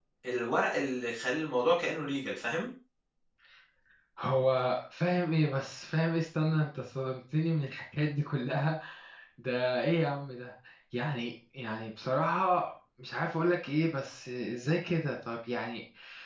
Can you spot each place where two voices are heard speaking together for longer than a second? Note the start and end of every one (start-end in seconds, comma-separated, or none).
none